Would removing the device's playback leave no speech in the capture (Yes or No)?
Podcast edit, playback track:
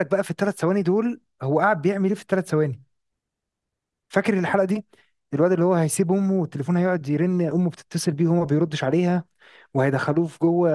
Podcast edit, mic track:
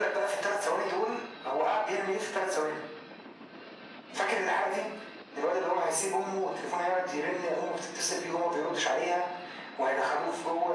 Yes